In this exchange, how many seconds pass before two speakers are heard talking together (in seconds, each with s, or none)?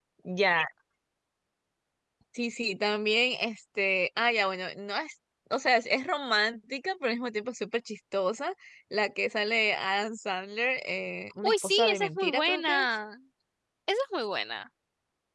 11.4 s